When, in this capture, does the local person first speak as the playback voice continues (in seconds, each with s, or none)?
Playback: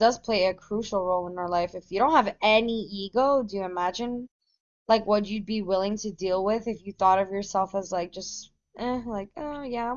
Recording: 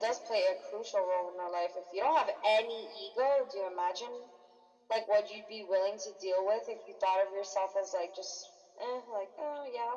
none